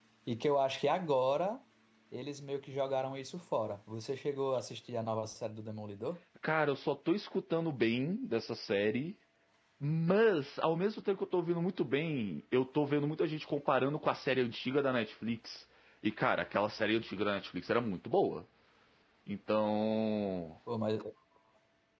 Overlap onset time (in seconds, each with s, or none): none